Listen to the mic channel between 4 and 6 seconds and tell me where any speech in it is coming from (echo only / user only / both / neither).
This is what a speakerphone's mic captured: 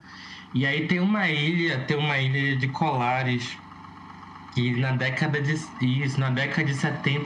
echo only